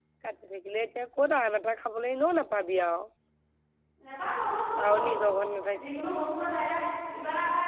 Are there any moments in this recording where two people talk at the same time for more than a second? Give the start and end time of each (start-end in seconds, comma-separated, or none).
none